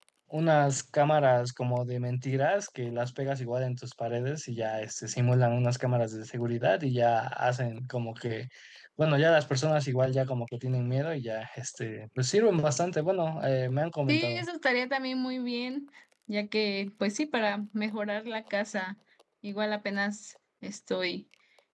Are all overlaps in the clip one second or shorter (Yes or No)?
Yes